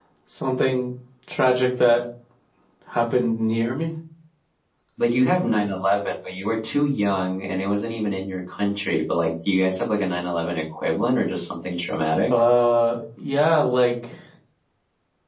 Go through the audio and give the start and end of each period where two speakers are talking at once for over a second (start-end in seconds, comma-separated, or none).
none